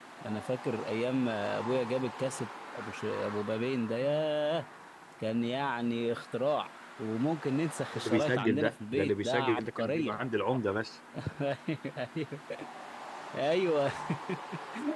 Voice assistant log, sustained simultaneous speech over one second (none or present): present